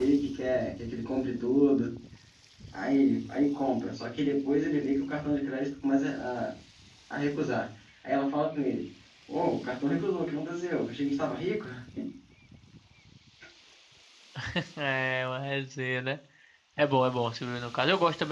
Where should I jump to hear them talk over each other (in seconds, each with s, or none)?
none